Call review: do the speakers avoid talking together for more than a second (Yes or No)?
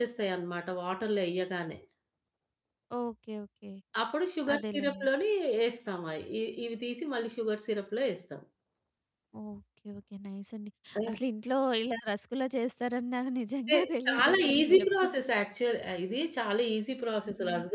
No